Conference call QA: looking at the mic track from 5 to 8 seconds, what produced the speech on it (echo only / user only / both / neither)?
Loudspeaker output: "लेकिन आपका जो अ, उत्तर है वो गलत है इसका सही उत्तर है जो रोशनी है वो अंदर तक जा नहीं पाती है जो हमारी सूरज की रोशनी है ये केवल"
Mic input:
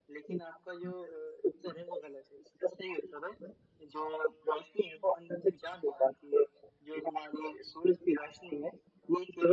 echo only